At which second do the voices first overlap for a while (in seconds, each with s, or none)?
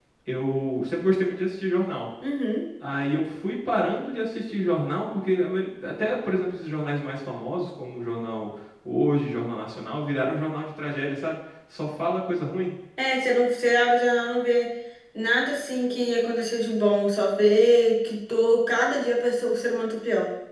none